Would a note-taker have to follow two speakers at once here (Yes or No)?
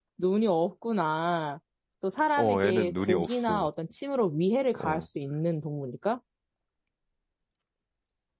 Yes